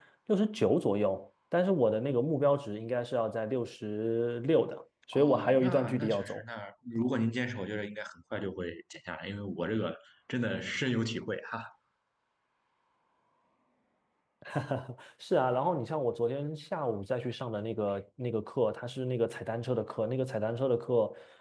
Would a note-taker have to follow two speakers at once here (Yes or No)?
Yes